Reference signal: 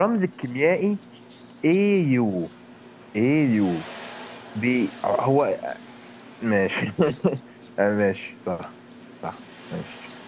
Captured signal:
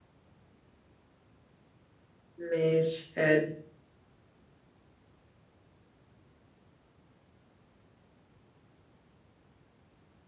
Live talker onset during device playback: 2.4 s

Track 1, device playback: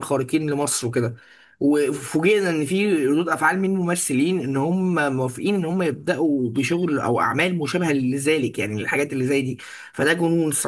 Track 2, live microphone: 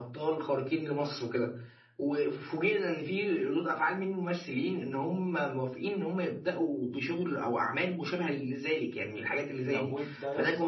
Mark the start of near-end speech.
9.7 s

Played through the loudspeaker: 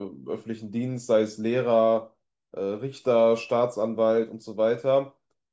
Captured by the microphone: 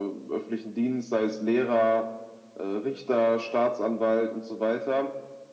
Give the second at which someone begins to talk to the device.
none

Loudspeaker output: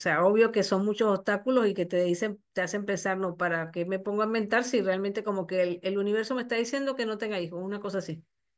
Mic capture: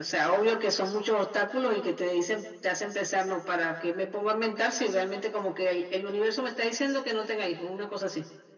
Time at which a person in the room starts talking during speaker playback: none

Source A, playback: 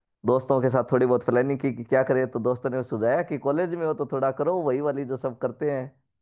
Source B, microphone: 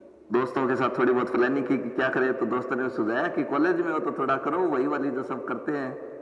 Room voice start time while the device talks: none

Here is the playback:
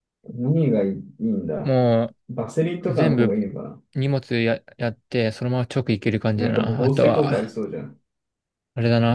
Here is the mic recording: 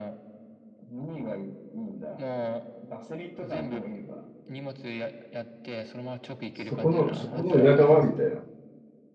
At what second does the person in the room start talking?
6.5 s

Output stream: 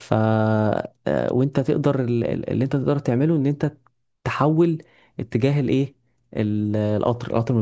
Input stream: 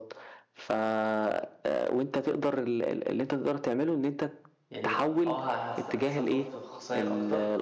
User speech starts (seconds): 4.7 s

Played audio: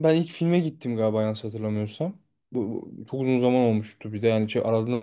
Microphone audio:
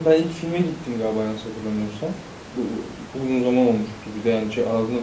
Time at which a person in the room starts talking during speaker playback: none

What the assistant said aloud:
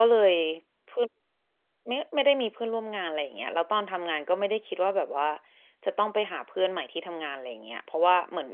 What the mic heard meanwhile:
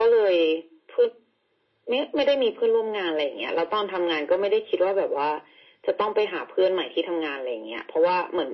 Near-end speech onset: none

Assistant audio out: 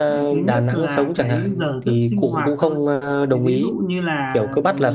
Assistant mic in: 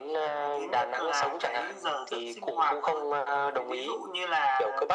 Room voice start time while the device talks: none

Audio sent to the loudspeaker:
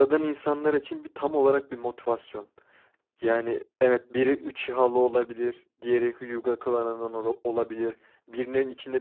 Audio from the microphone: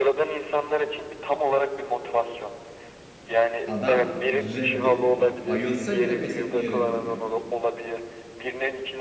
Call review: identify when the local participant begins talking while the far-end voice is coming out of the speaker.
3.7 s

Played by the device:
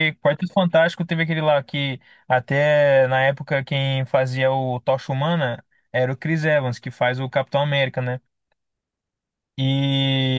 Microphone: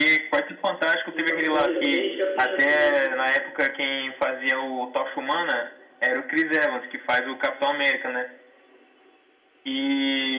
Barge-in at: 1.1 s

